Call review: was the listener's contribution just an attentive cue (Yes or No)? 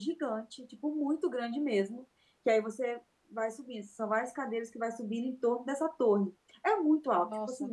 Yes